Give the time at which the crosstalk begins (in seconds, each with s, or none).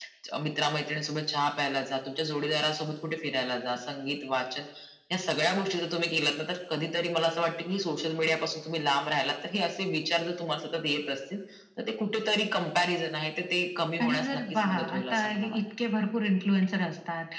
14.0 s